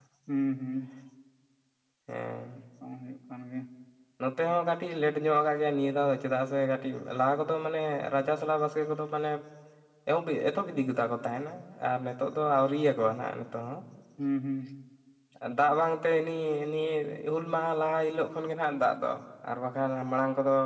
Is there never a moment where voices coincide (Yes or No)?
Yes